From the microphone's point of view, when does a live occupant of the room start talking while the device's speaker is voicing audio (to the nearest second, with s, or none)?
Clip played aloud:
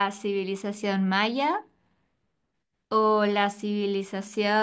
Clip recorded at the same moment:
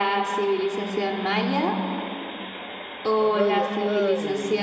3 s